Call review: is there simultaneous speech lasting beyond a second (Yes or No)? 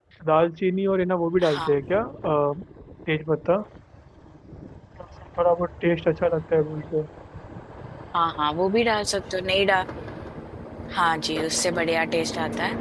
No